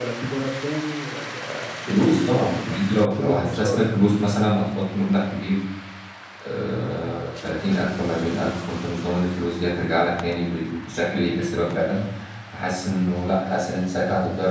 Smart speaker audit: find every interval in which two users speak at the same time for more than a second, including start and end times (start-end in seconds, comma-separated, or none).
1.9-3.9